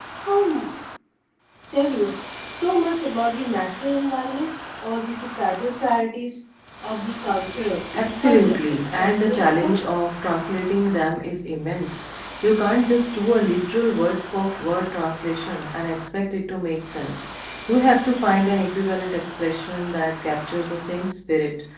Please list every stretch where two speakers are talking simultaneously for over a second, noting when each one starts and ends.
8.2-9.8

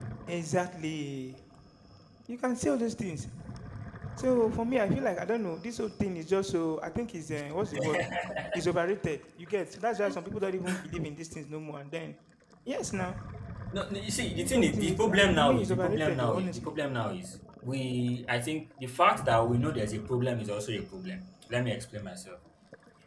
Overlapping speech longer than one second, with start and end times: 14.3-16.7

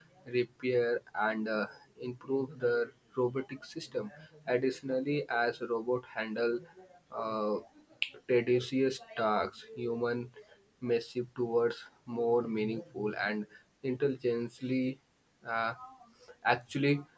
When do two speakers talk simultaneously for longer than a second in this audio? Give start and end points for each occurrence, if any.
none

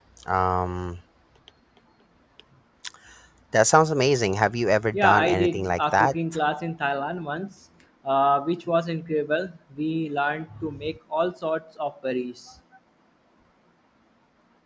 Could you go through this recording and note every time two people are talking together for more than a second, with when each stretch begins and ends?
4.9-6.2

